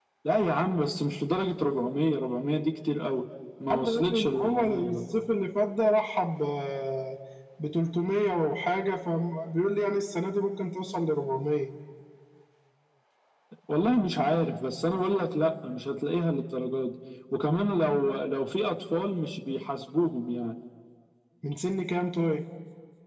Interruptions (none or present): present